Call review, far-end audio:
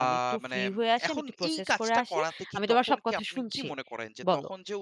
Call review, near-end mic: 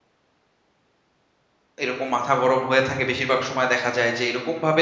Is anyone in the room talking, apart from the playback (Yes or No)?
Yes